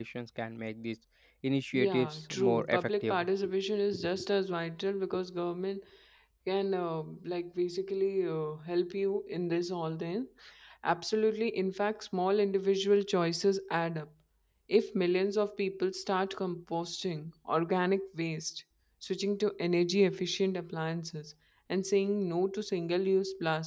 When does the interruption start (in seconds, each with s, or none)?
1.7 s